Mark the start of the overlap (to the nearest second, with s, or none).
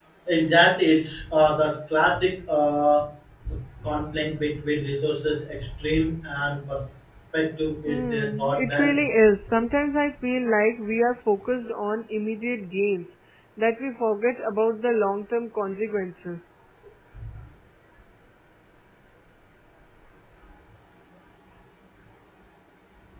8 s